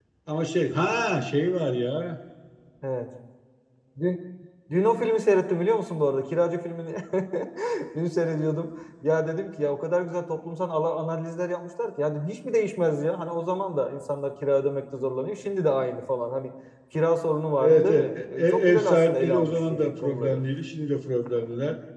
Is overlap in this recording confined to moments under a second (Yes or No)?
No